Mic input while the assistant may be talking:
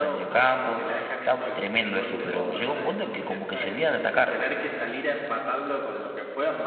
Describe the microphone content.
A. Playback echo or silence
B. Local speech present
B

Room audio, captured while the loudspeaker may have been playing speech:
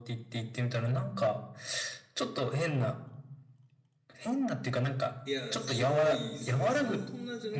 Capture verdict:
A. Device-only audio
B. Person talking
B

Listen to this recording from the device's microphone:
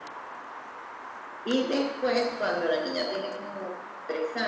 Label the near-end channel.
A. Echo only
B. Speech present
A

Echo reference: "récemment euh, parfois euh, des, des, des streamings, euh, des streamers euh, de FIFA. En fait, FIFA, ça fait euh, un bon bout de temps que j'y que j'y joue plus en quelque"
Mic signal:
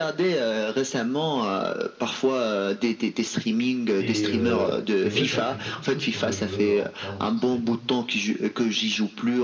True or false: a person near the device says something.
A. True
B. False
A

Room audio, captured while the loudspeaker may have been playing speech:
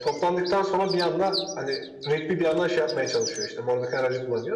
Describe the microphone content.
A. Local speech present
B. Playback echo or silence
B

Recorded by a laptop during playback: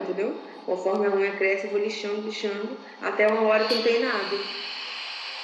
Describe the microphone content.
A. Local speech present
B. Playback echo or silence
B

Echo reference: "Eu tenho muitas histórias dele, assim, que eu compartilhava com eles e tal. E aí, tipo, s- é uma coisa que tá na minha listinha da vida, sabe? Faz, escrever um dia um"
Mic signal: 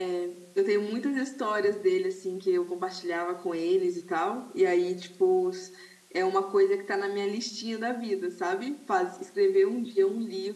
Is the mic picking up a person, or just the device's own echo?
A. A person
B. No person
B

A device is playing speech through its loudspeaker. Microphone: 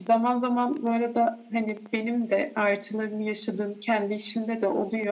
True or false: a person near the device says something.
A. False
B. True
A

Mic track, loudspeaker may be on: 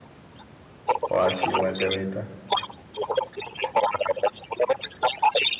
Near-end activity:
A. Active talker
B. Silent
A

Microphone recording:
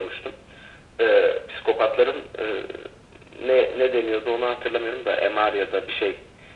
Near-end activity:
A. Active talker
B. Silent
B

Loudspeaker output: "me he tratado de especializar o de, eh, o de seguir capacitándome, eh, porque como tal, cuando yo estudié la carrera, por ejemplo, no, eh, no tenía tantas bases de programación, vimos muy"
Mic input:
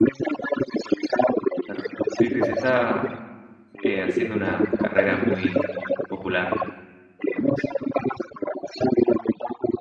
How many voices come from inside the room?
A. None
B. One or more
B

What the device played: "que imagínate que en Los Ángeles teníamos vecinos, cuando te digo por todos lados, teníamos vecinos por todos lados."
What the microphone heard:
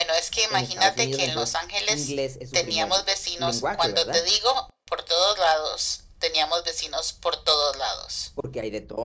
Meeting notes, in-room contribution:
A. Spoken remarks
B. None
A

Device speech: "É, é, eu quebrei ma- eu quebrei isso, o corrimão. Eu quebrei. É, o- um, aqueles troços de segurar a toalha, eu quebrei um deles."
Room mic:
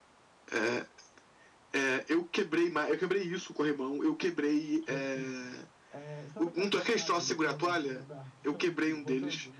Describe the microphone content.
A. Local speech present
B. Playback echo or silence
A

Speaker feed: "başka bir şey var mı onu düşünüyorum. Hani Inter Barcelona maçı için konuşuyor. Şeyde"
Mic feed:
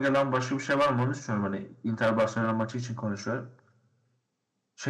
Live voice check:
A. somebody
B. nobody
B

